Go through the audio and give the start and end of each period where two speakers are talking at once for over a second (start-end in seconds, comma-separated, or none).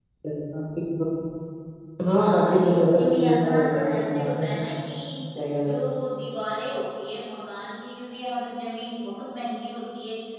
2.1-4.4